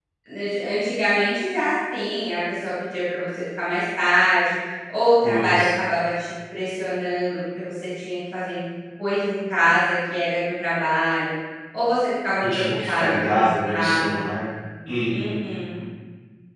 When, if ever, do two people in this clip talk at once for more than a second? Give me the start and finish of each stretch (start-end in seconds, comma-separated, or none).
12.4-14.2